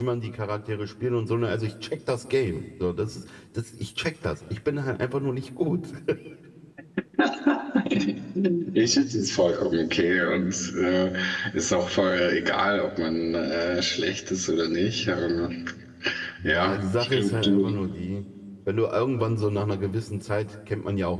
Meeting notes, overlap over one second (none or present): present